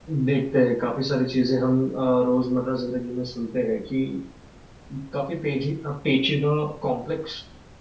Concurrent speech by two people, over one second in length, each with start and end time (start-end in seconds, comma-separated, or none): none